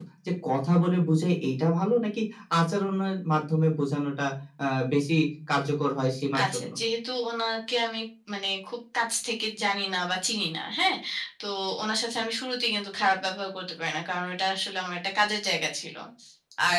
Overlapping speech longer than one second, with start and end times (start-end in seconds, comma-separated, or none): none